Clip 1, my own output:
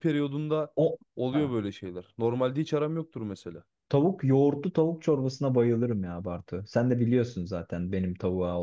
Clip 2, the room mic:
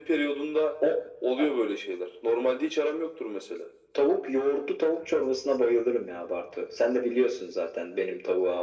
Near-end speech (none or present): none